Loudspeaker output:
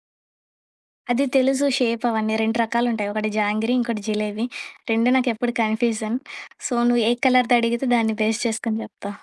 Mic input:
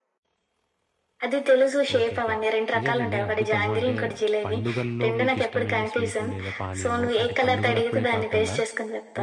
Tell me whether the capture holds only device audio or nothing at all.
No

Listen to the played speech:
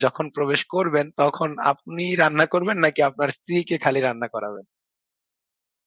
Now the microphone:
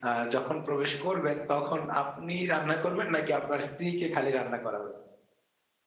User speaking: No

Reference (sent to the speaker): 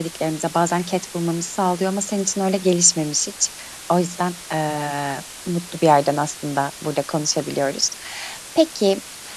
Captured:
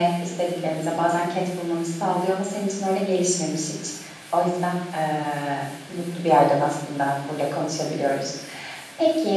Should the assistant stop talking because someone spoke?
No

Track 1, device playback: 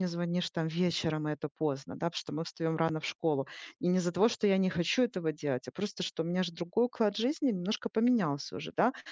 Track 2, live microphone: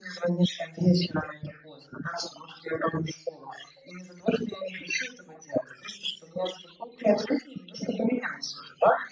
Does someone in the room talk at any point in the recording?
No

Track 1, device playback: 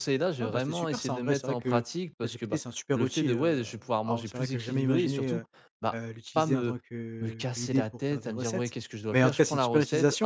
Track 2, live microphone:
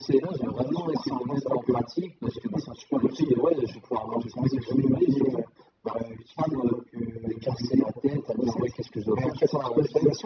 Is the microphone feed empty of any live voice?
Yes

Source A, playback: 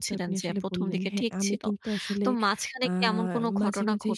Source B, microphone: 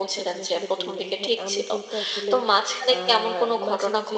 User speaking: No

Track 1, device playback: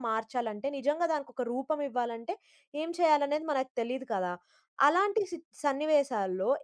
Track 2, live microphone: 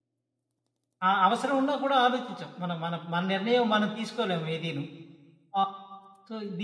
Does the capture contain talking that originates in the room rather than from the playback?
Yes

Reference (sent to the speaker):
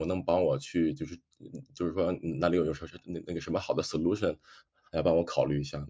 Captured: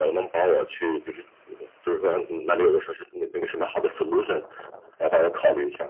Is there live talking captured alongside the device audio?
No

